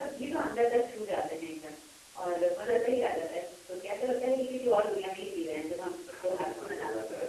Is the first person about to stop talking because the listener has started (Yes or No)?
Yes